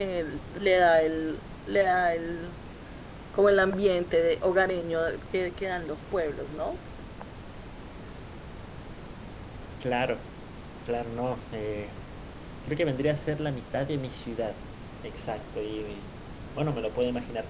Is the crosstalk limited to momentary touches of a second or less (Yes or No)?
Yes